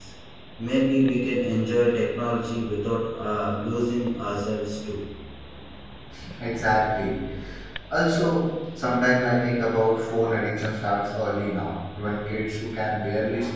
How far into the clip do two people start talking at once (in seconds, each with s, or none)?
none